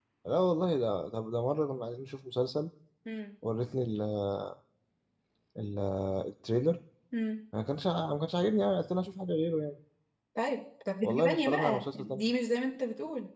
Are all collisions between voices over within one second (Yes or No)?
No